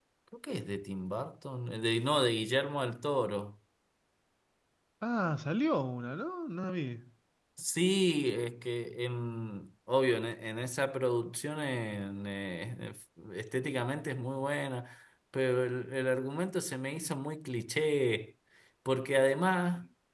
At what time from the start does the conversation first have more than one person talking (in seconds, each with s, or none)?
none